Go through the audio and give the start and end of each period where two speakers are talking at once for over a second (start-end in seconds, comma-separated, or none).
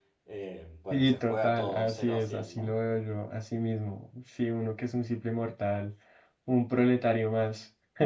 0.9-2.8